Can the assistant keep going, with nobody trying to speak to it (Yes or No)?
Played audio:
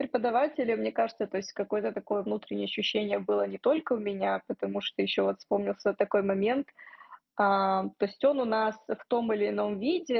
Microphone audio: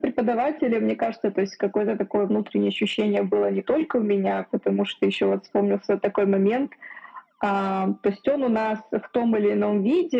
Yes